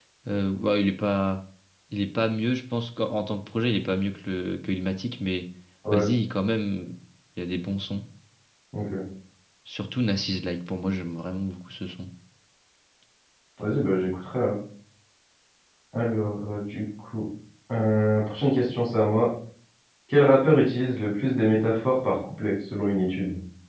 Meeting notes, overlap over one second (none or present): none